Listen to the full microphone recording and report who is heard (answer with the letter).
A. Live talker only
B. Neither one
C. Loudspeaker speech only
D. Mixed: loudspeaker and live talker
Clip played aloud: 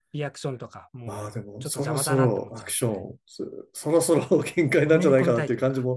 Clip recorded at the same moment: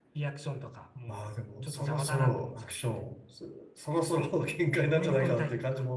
C